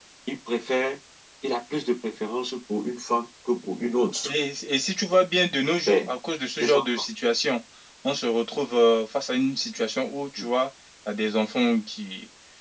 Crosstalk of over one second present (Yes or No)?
No